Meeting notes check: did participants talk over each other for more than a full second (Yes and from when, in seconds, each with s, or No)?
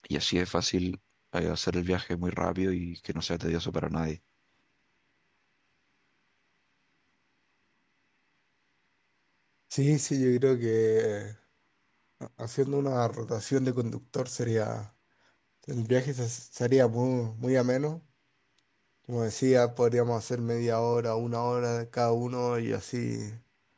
No